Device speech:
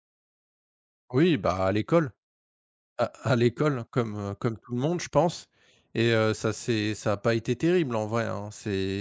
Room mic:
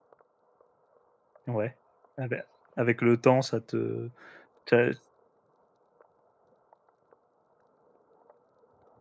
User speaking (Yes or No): Yes